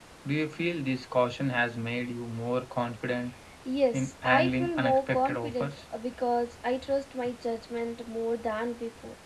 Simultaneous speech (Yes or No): Yes